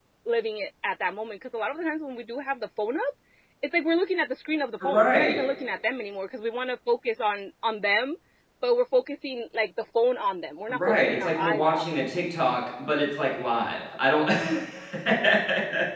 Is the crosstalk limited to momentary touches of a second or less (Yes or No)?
No